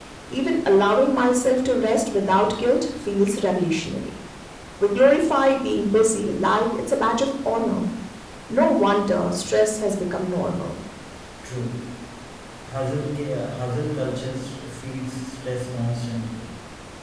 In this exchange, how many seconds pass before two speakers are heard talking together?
none

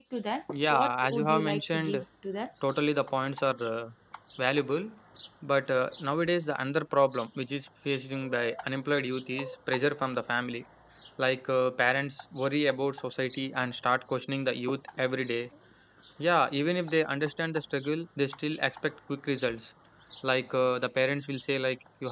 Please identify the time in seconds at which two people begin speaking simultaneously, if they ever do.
0.7 s

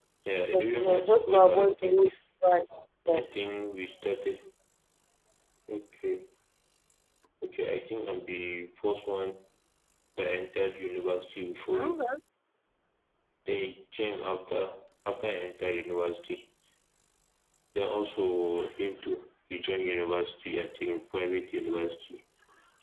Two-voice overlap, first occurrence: 0.5 s

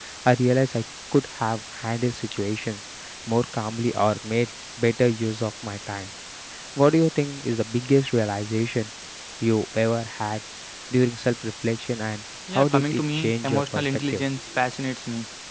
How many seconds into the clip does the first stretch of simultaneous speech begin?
12.5 s

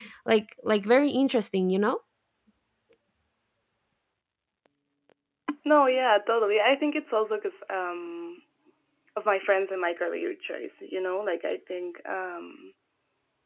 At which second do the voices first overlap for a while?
none

